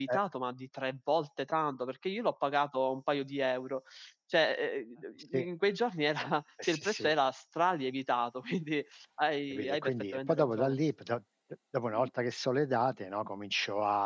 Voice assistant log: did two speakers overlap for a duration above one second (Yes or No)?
Yes